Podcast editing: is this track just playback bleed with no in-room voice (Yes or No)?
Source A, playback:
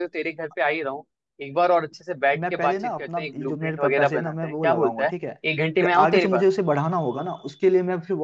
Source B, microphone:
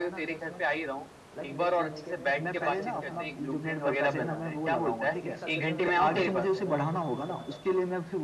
No